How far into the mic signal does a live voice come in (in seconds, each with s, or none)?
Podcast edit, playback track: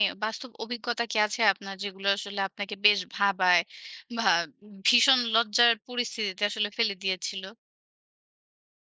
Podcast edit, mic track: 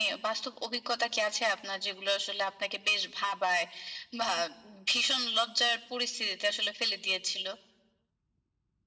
none